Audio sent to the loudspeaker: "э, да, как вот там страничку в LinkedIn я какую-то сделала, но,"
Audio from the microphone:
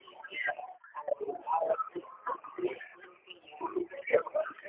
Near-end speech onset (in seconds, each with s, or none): none